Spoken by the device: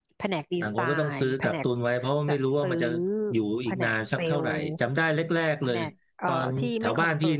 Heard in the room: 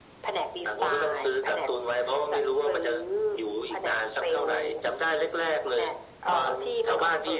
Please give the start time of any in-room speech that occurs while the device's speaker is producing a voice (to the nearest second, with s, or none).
none